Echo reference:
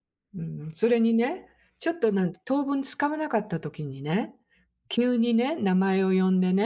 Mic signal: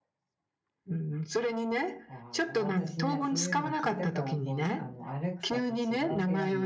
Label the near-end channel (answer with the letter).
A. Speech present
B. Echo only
A